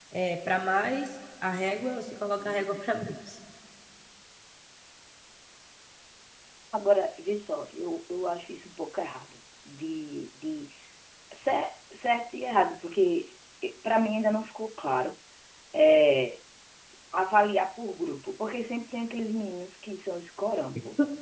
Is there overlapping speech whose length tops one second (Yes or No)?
No